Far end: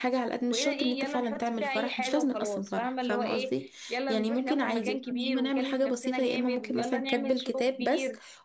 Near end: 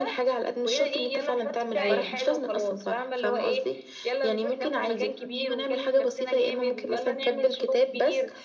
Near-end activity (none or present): present